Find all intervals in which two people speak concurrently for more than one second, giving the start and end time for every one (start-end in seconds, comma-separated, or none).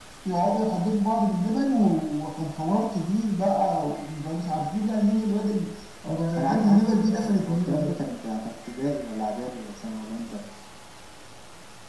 6.4-7.9